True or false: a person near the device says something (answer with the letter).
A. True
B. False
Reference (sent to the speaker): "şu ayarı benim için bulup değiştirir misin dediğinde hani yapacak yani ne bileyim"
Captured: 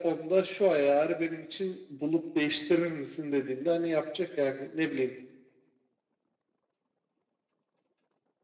B